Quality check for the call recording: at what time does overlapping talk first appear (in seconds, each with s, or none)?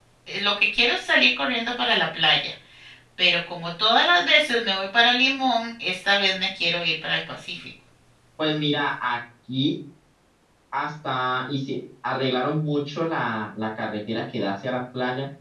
none